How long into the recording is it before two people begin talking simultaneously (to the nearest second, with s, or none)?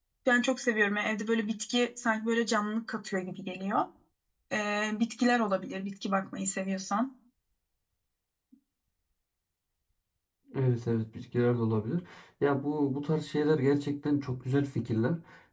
none